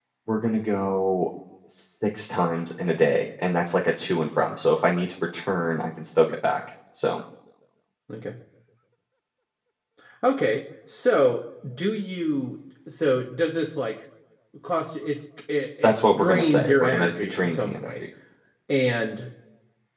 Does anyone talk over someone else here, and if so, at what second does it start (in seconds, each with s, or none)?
15.8 s